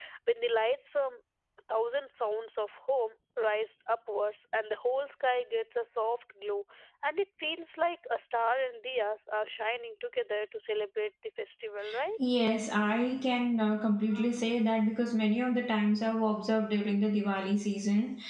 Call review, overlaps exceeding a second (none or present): none